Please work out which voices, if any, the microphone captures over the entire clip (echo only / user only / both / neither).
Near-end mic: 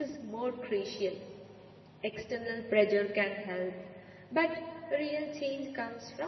user only